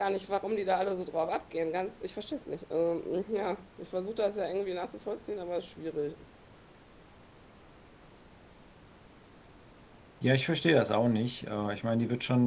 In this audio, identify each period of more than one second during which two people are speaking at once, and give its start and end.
none

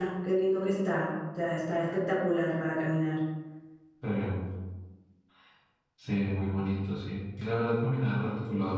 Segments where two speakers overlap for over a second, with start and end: none

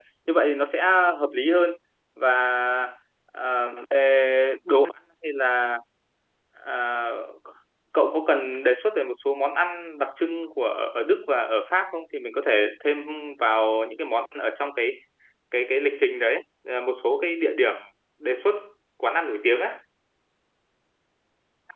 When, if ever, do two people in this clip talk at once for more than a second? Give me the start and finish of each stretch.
none

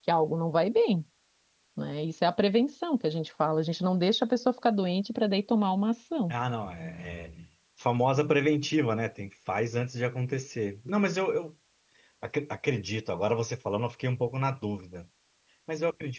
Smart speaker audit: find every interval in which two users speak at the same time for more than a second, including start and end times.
none

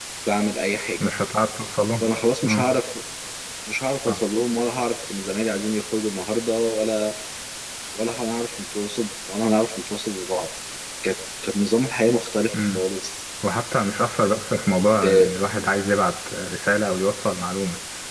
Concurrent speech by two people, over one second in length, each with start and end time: none

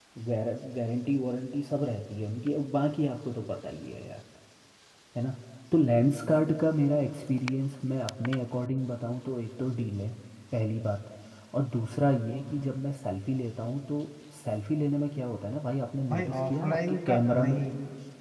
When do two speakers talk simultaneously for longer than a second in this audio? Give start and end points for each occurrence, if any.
16.1-17.6

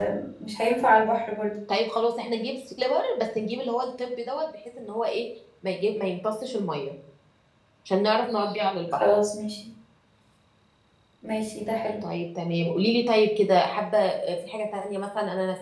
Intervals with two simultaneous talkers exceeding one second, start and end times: none

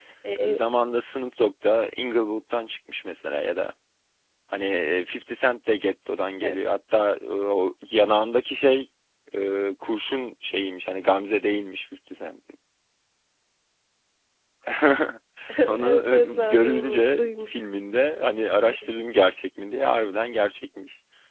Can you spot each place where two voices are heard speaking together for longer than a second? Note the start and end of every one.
15.8-17.6

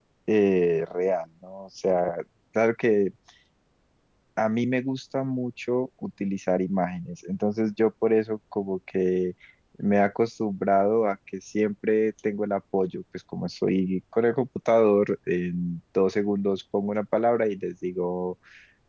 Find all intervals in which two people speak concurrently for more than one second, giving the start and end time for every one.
none

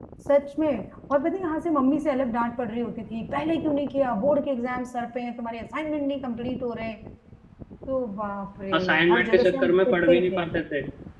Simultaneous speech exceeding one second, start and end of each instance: 8.8-10.4

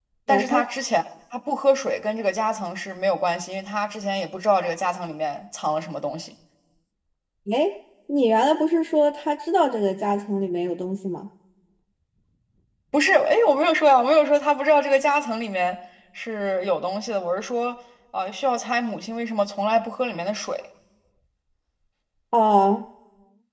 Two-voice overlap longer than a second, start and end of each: none

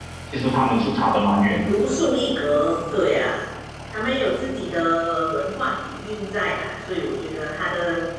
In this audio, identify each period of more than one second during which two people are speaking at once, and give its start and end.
none

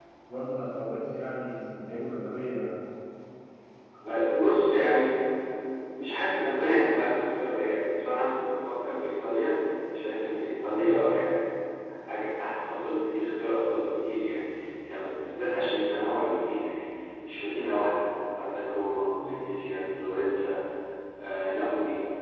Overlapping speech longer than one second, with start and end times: none

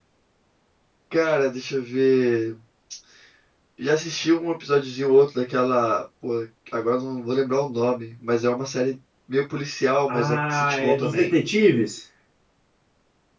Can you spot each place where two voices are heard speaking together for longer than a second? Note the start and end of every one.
10.1-11.3

